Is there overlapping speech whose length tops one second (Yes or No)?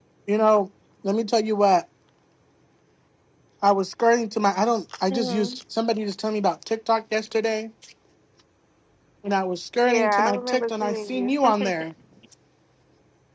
Yes